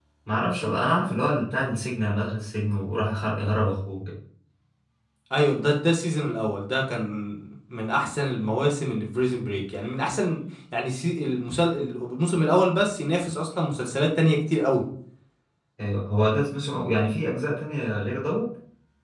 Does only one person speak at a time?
Yes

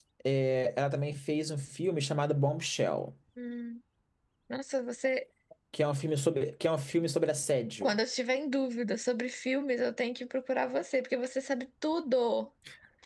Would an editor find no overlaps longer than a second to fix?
Yes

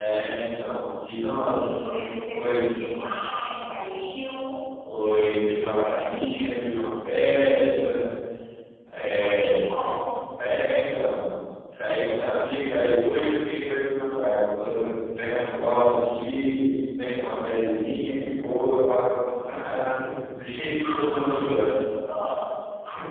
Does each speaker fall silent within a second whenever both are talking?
No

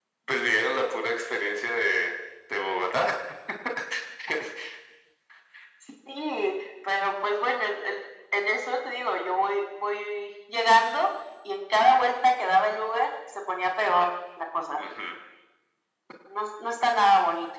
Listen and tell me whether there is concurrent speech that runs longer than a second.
No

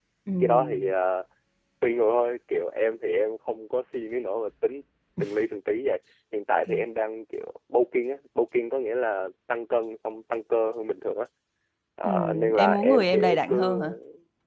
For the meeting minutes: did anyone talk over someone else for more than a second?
Yes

